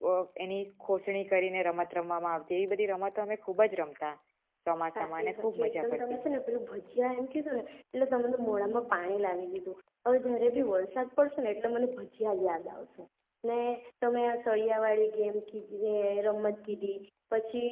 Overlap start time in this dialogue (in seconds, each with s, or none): 5.0 s